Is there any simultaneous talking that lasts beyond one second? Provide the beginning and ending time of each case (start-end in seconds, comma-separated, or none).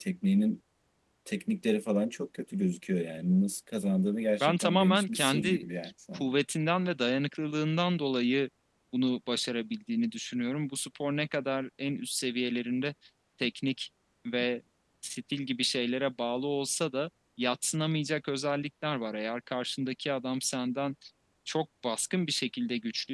4.4-5.6